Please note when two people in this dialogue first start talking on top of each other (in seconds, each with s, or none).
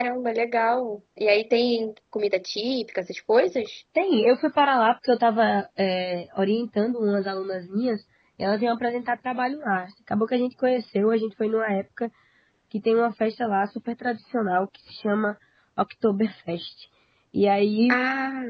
none